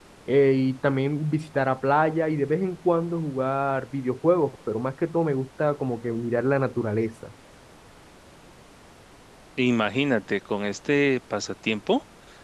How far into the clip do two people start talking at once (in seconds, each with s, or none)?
none